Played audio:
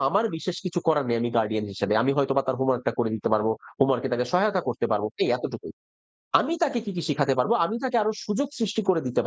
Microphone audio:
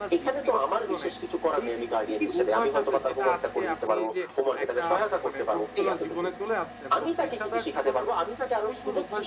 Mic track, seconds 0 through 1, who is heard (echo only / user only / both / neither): both